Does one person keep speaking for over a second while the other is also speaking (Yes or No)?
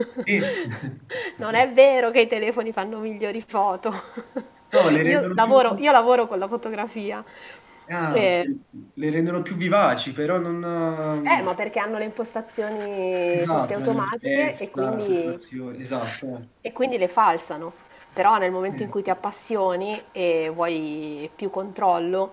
Yes